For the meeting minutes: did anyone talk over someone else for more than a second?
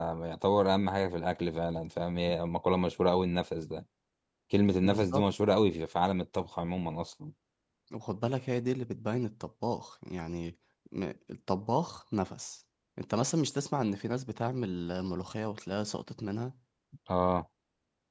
No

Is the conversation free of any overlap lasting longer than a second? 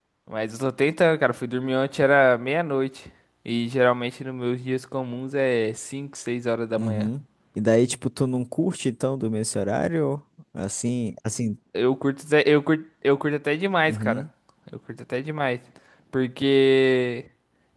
Yes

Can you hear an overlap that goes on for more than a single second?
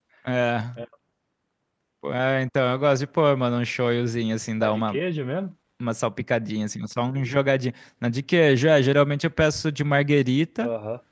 No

